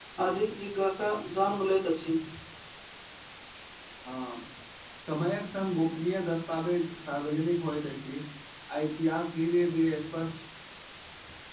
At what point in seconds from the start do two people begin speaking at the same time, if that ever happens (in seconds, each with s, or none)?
none